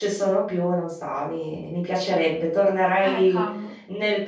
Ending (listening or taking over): listening